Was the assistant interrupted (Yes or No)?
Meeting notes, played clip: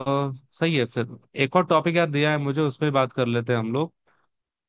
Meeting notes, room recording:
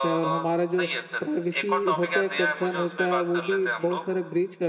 Yes